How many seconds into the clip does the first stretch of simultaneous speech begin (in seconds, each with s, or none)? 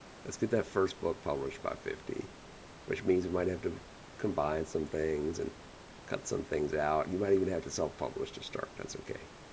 none